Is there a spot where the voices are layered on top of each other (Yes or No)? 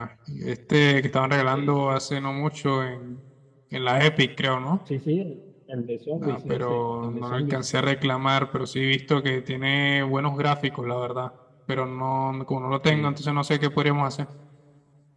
Yes